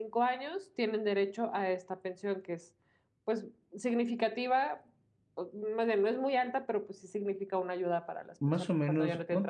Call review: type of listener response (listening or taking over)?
taking over